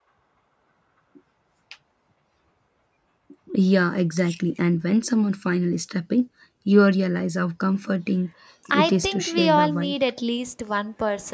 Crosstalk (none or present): present